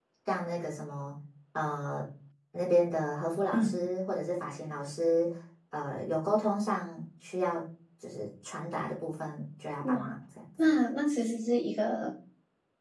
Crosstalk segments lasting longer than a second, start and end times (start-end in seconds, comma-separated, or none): none